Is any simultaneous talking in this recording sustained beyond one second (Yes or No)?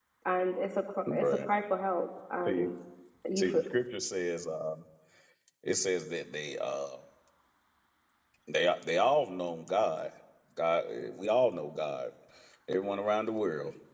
No